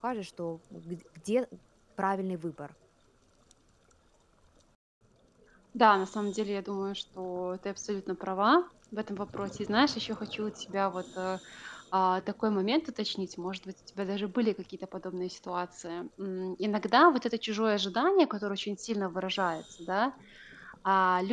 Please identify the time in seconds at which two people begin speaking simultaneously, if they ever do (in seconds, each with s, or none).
none